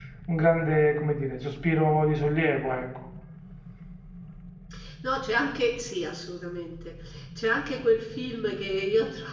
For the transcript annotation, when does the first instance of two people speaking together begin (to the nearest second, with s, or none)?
none